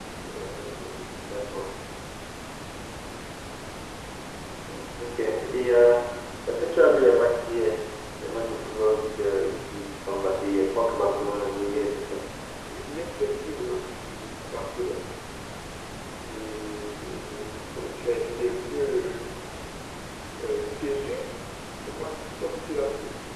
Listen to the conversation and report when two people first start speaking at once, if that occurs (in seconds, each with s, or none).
none